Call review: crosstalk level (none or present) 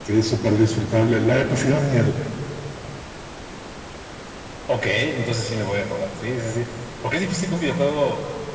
none